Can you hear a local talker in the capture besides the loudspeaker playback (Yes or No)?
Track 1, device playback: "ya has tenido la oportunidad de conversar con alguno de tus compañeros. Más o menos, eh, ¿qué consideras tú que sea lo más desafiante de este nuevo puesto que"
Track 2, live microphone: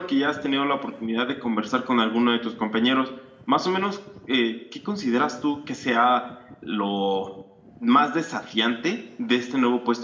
No